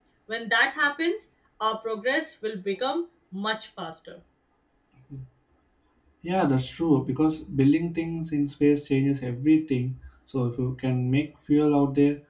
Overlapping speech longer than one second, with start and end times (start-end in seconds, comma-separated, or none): none